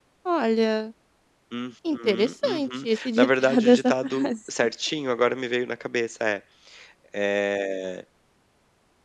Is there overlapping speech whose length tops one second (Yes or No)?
Yes